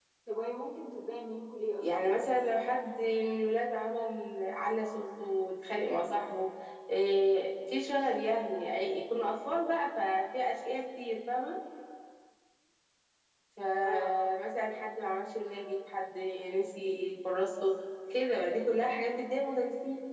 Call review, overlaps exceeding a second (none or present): none